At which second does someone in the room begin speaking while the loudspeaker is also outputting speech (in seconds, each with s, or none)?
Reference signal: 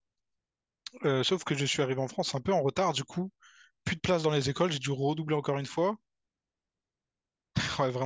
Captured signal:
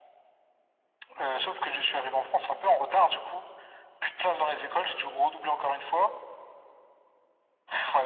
none